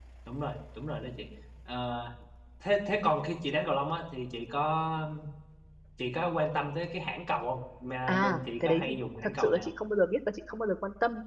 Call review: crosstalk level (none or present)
present